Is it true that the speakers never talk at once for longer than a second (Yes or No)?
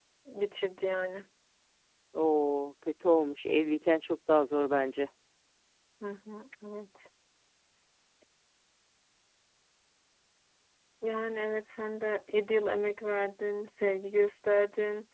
Yes